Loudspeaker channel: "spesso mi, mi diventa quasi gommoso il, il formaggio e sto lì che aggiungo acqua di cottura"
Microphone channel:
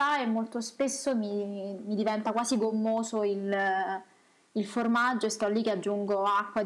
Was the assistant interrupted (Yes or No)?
No